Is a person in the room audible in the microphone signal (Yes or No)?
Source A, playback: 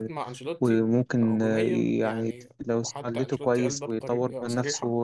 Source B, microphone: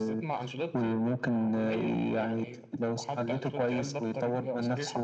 No